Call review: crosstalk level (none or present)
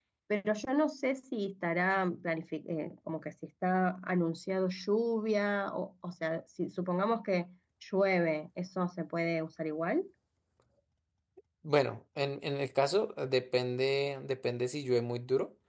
none